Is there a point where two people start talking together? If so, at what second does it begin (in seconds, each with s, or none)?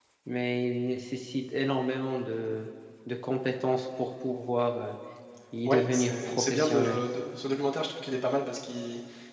5.6 s